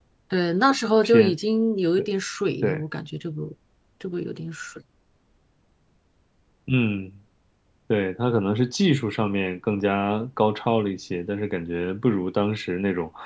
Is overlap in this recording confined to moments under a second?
Yes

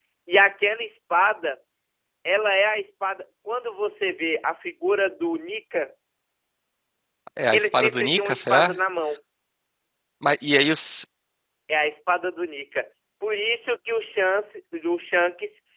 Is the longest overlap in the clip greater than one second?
Yes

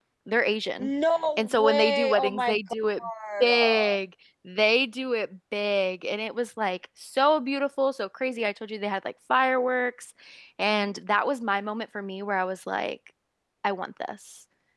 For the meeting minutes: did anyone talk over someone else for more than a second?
Yes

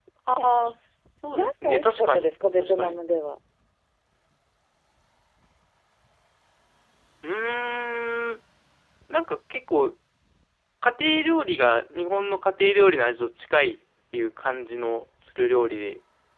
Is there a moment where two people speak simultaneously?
Yes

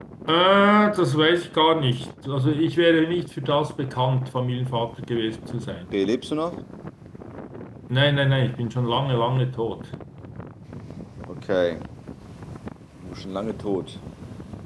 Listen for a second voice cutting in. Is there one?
No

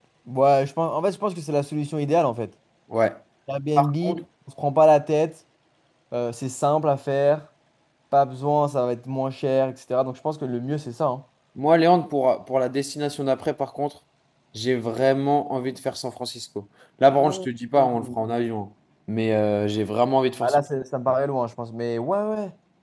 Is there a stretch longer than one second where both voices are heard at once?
No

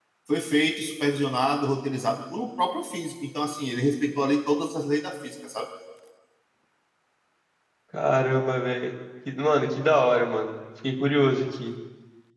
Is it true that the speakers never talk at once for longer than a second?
Yes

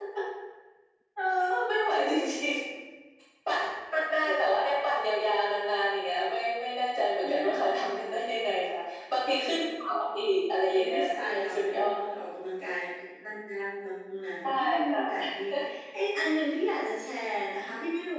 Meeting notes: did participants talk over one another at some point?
Yes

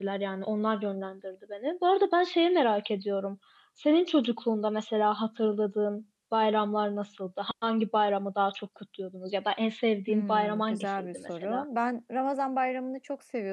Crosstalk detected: Yes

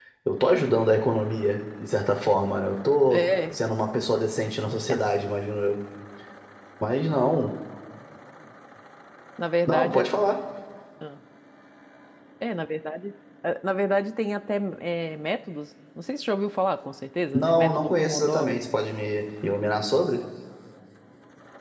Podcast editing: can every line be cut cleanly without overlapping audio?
No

